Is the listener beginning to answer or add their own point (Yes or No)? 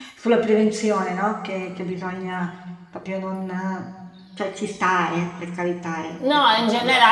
Yes